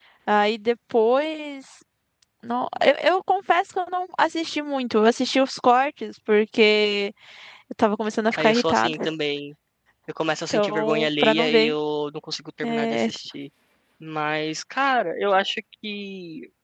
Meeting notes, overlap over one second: present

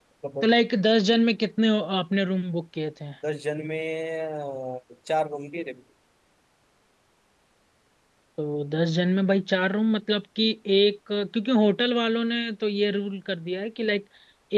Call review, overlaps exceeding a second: none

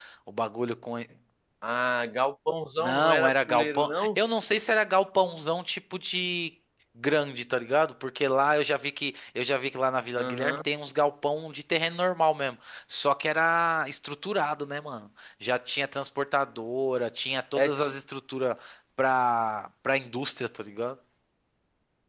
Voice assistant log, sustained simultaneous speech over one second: present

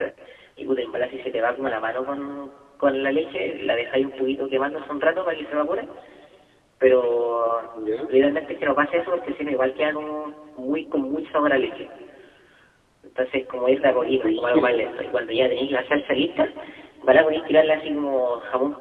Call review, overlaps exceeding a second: present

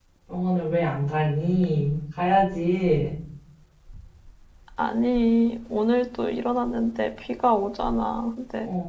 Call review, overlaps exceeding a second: none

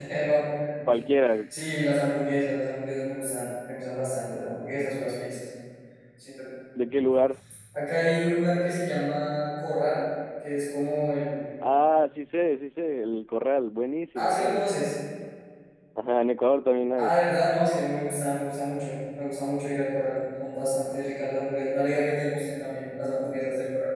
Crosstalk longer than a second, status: none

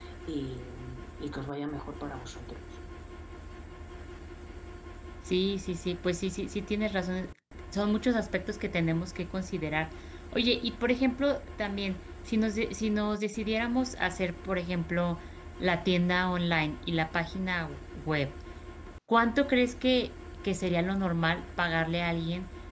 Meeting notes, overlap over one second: none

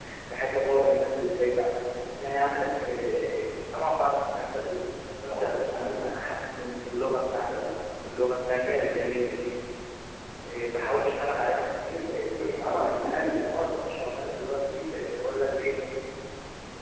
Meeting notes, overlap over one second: present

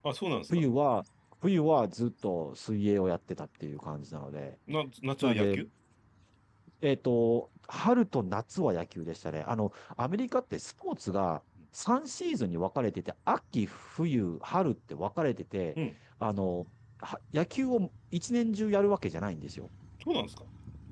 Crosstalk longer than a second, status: none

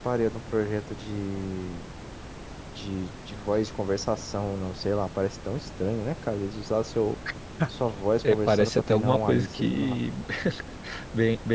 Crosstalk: present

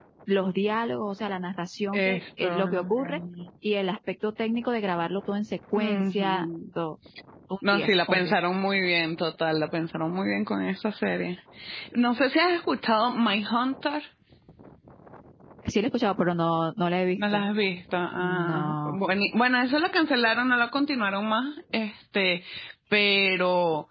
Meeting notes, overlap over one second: present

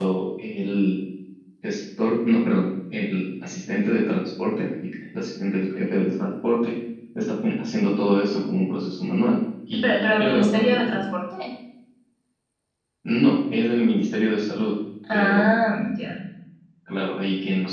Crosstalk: present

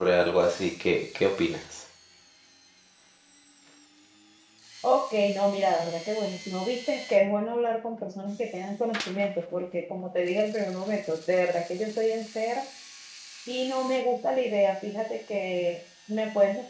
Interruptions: none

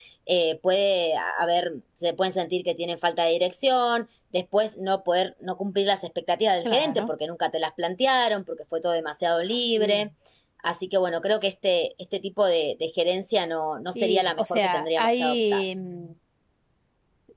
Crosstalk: present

